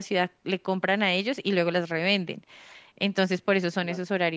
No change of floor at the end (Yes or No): Yes